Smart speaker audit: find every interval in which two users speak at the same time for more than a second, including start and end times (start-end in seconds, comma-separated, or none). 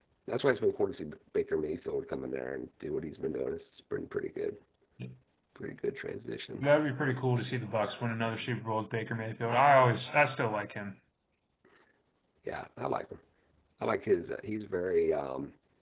none